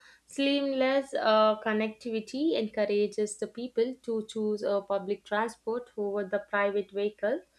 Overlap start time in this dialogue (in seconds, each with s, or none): none